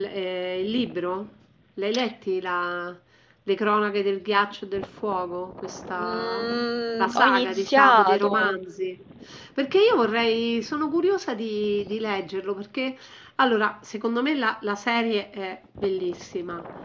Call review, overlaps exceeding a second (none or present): present